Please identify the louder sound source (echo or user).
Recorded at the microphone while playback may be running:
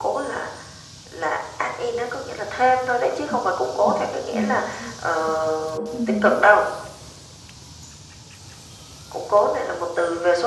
echo